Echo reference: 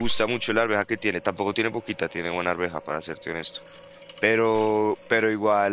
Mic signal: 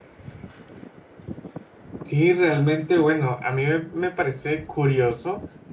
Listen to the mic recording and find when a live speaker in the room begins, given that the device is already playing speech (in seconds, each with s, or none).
2.0 s